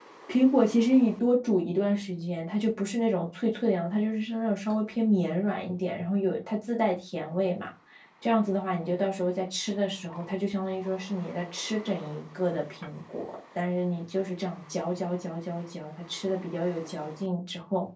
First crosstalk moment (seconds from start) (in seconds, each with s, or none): none